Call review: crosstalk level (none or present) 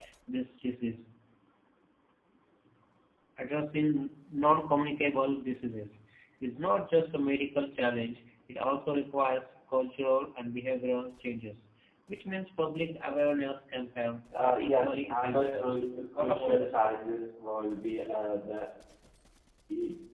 present